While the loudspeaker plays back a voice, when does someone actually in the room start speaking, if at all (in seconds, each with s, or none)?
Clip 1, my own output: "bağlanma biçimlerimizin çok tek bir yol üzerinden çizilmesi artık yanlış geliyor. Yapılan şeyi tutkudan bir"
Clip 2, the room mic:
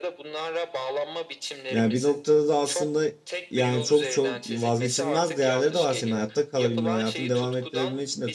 1.7 s